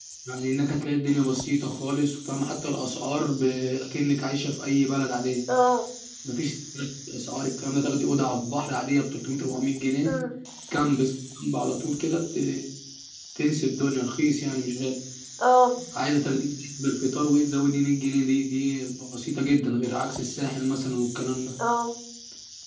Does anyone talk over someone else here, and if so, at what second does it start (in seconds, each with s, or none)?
none